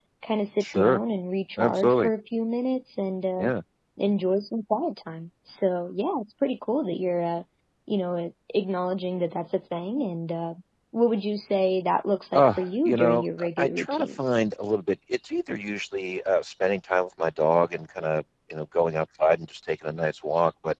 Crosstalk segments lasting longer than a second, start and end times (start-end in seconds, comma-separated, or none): 12.3-14.3